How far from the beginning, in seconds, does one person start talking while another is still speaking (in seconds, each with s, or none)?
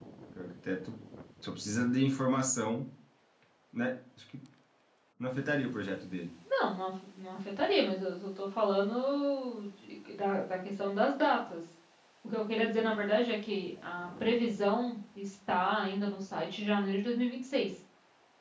none